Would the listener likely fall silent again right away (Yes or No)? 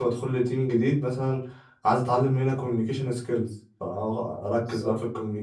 Yes